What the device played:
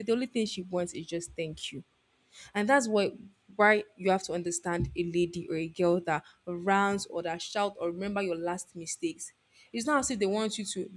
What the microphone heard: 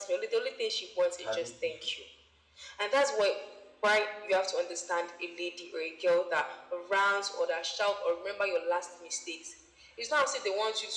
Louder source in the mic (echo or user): echo